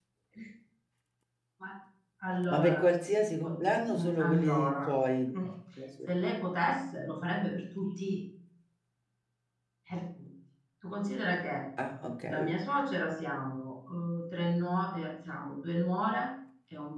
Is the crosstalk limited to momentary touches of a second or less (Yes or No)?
No